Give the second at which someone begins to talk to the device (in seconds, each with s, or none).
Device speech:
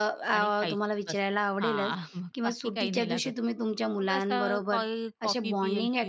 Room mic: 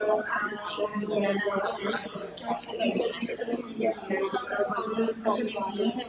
none